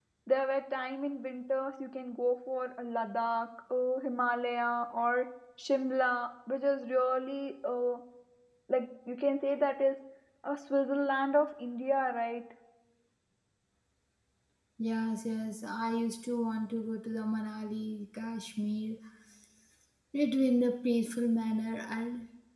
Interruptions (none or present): none